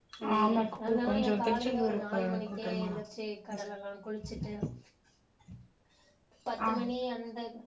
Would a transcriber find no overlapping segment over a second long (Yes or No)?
No